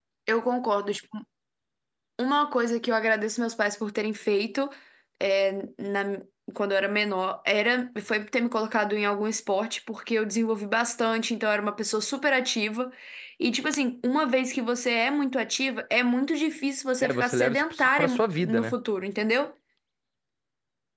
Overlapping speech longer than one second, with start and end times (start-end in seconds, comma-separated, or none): 17.0-18.7